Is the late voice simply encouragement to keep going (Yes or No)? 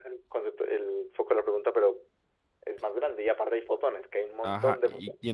No